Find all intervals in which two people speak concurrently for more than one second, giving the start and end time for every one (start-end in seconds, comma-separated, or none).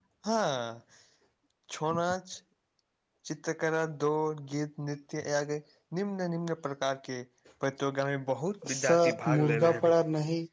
8.7-9.9